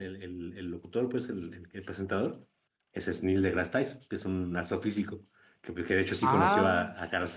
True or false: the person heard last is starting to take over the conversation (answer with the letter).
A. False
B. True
A